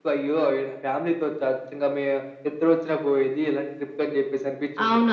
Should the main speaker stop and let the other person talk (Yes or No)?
Yes